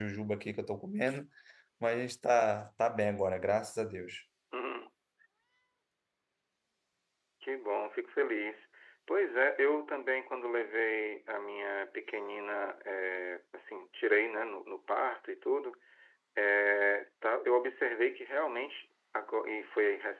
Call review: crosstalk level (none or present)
none